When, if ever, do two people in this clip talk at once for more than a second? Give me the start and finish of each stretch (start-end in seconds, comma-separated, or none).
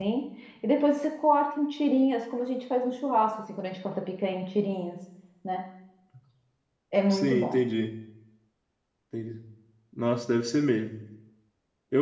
none